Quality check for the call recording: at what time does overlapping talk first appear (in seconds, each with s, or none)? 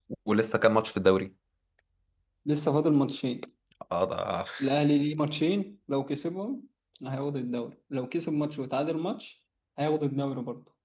none